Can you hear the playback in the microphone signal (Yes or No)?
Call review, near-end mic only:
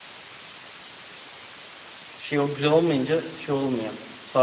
No